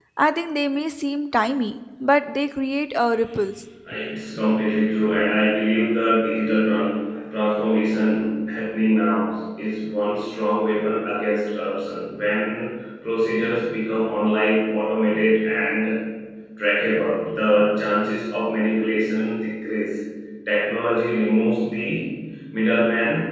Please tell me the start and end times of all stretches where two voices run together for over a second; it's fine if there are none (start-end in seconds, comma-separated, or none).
none